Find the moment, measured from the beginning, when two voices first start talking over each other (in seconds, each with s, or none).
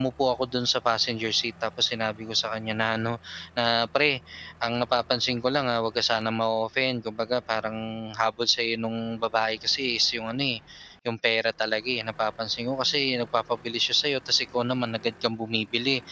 none